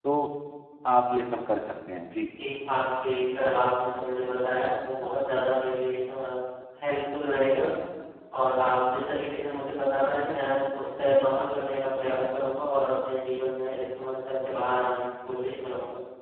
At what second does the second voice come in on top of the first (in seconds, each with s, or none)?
none